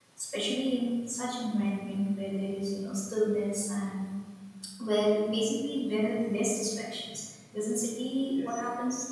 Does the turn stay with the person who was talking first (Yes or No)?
Yes